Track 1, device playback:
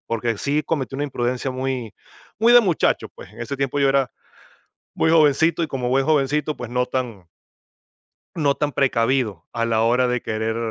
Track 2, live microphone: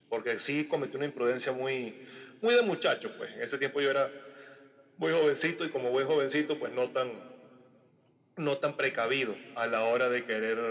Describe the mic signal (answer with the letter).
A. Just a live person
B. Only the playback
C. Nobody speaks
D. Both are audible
B